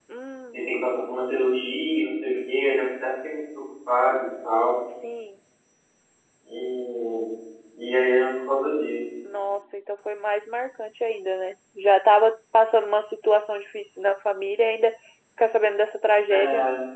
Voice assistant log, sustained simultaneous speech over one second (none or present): none